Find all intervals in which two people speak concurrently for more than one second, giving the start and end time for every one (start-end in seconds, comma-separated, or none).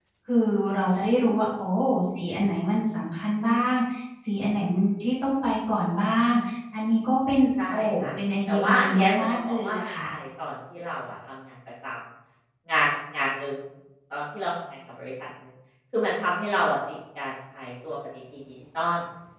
8.5-9.9